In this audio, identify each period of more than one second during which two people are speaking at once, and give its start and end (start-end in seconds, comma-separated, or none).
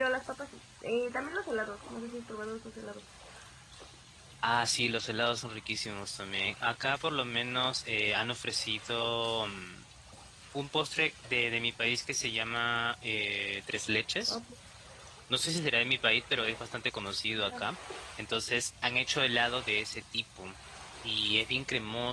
none